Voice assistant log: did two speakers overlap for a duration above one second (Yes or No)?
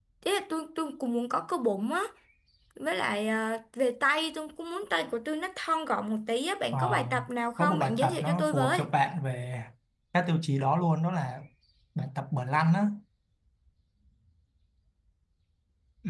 Yes